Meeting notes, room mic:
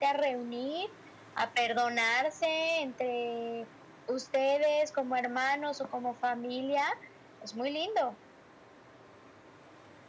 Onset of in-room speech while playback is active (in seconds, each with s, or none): none